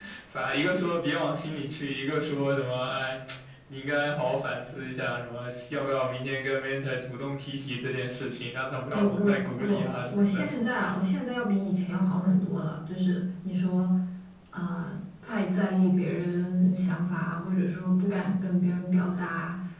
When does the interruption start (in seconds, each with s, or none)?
8.9 s